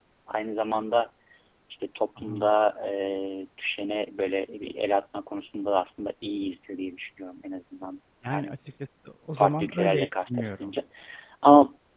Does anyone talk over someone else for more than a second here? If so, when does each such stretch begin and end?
9.4-10.7

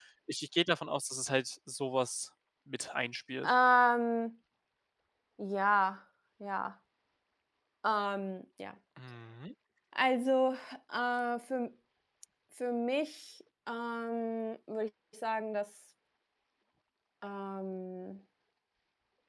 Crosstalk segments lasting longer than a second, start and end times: none

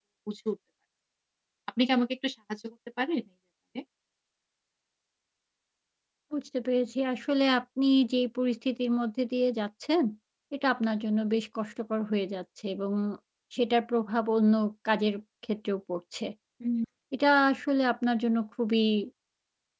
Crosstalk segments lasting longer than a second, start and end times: none

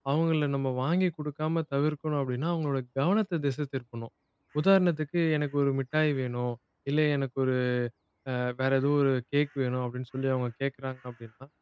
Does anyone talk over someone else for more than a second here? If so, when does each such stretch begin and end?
none

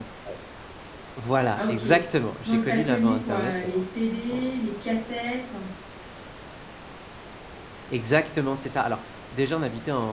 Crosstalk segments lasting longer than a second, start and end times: 2.5-3.8

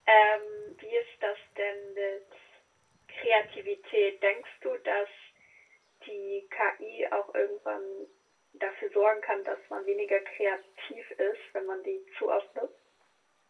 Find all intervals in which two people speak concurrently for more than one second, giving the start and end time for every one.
none

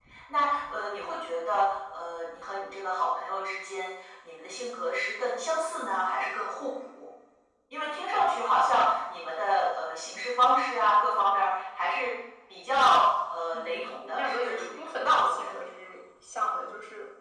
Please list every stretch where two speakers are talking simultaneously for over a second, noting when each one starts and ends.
13.5-15.6

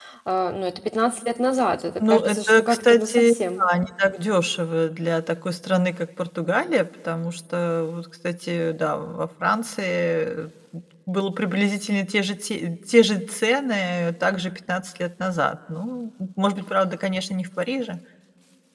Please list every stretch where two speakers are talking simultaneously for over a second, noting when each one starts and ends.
2.0-3.3

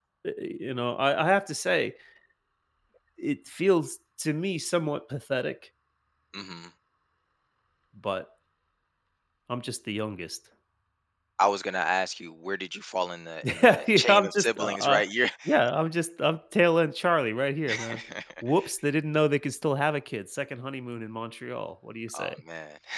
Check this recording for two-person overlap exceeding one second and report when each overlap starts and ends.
13.4-15.0

